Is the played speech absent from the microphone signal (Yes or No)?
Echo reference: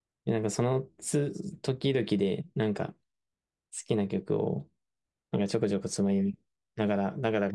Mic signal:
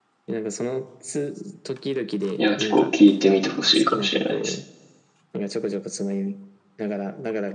No